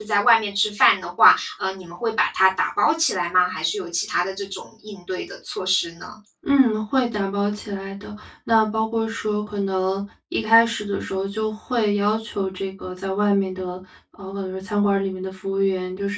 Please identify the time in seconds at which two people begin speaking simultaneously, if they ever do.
none

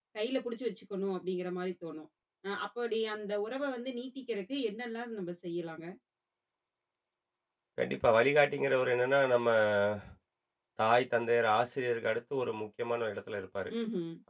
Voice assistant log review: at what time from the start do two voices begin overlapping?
none

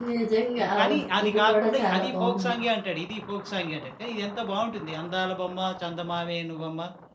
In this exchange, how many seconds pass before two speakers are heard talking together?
0.6 s

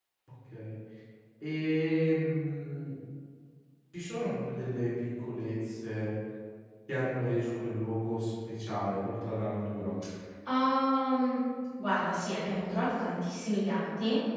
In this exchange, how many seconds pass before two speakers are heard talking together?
none

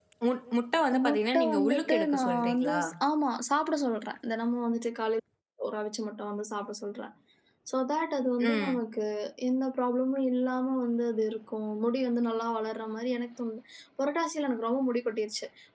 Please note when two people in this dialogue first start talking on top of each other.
1.1 s

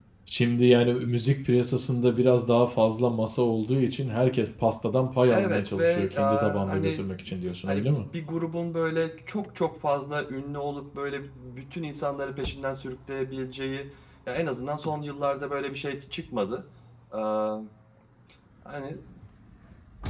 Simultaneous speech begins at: 5.3 s

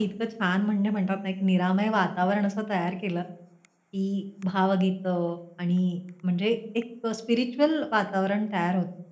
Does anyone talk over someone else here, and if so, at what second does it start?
none

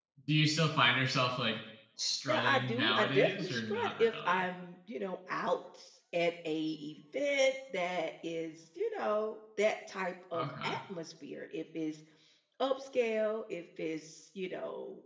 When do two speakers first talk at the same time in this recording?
2.3 s

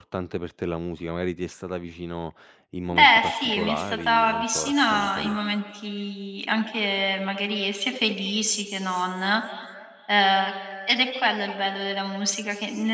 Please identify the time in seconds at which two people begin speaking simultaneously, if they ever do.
2.9 s

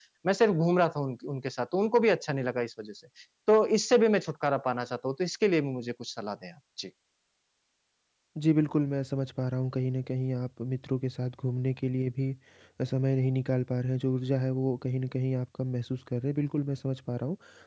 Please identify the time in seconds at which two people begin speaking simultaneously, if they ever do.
none

